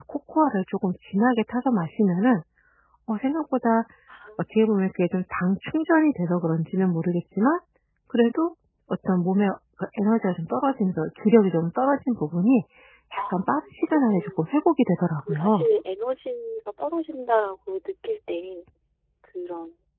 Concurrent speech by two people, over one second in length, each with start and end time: 13.2-14.7

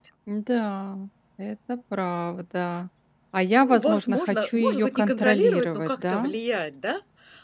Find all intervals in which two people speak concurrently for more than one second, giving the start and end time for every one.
3.6-6.3

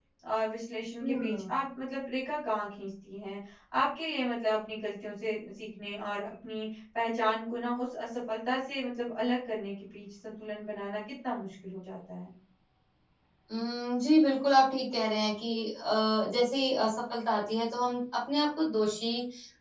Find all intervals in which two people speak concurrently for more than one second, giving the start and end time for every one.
none

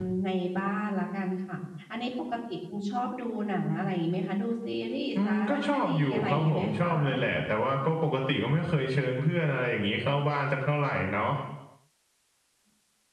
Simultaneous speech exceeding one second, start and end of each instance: 5.2-6.9

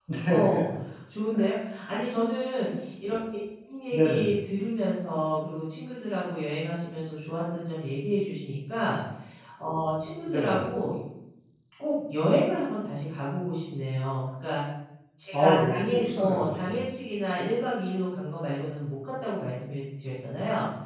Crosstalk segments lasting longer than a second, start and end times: 15.3-16.8

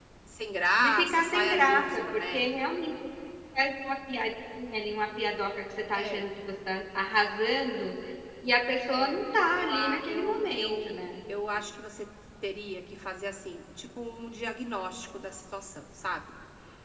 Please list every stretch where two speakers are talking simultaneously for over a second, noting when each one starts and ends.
0.8-2.5, 9.6-11.1

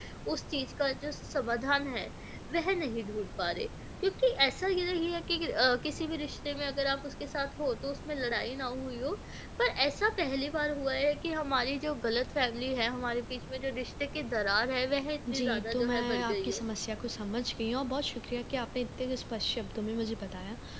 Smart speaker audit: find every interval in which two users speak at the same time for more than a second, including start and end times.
15.3-16.6

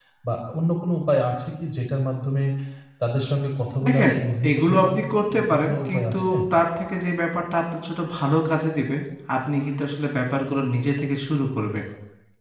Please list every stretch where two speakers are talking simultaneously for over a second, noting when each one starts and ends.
4.5-6.3

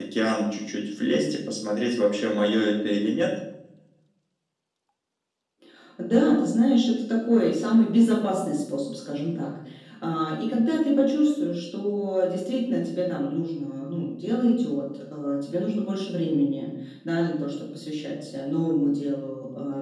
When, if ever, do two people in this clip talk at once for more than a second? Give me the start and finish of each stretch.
none

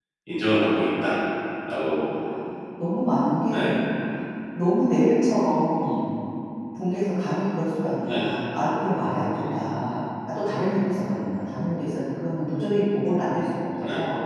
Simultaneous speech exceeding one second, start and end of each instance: none

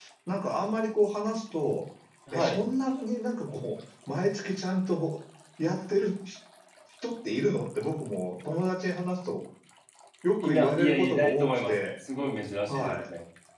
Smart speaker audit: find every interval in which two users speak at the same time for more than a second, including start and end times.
10.4-11.7

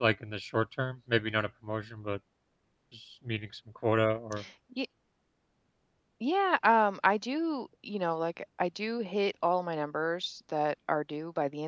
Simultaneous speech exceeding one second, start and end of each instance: none

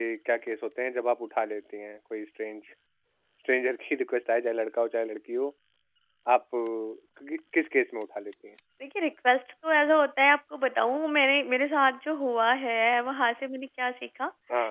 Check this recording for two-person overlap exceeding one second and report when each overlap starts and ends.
none

